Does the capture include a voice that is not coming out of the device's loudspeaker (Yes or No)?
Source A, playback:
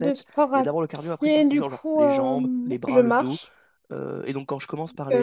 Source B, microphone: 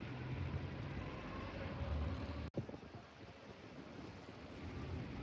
No